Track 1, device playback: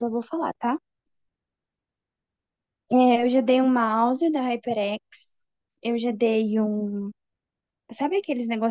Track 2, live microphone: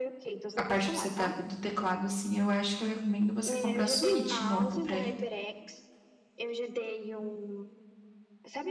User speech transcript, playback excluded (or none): a parte do setup do teclado, assim, eu acho que eu recomendo você comprar Switch novo pra ele.